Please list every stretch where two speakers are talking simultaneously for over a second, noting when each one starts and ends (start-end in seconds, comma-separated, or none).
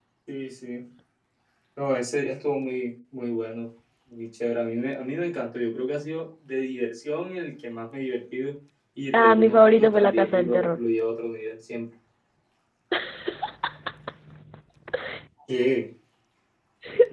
9.1-10.8